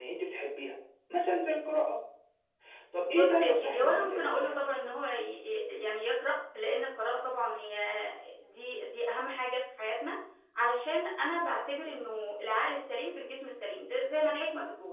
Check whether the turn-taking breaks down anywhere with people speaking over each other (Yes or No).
Yes